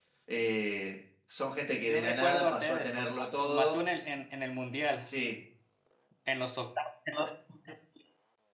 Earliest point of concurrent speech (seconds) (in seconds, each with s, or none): 1.9 s